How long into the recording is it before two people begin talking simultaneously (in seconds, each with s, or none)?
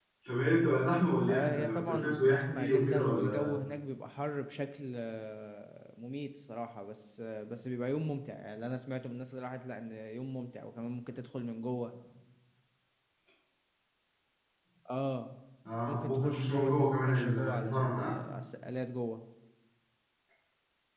1.3 s